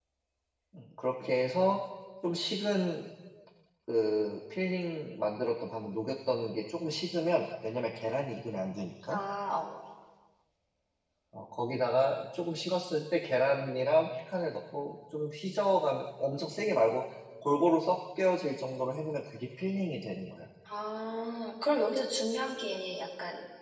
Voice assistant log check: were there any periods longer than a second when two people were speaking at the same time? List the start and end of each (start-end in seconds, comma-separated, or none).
none